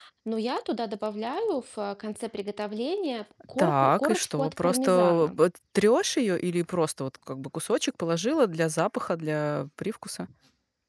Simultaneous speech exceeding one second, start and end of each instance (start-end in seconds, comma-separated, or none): 3.6-5.4